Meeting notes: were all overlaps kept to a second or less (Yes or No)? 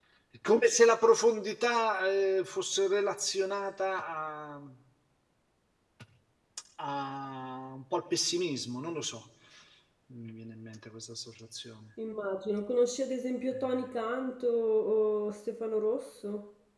Yes